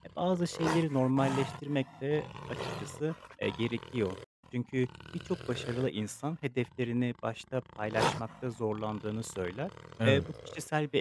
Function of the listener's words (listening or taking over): listening